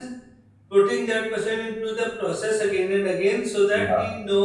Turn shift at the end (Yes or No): No